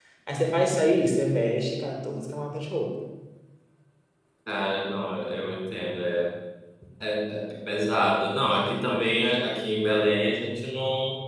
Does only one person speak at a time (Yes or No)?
Yes